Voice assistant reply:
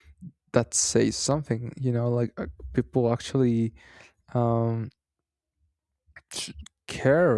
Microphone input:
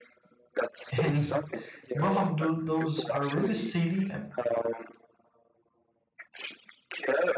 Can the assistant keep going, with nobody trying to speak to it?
No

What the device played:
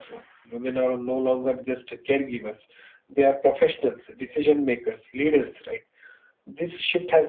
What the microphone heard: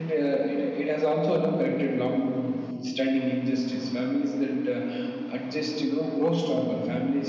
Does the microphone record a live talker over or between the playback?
Yes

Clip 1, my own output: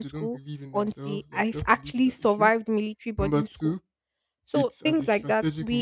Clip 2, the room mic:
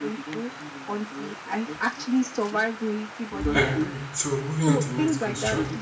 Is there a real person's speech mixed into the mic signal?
Yes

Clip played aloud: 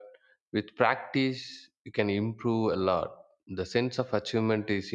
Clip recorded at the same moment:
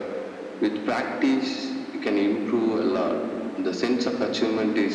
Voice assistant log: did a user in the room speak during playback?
No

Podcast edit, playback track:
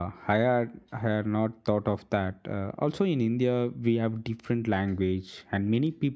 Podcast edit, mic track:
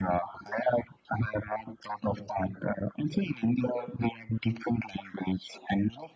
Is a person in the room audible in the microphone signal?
No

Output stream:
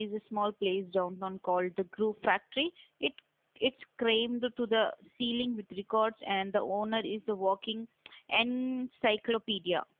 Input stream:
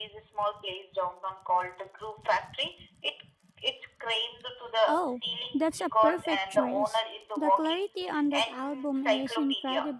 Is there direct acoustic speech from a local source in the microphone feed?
Yes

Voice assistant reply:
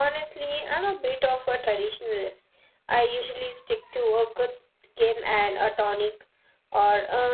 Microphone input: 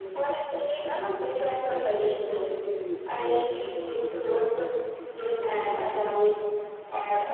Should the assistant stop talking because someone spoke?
Yes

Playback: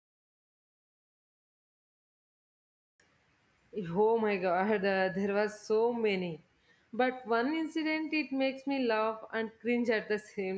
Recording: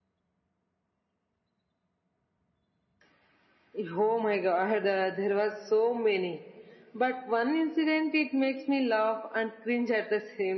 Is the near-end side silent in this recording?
Yes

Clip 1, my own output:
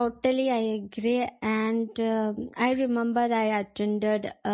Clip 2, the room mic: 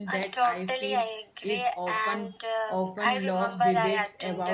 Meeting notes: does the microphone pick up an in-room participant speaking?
Yes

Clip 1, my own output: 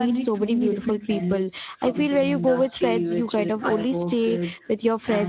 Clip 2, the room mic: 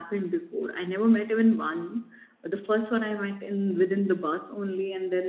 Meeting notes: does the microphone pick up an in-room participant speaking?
Yes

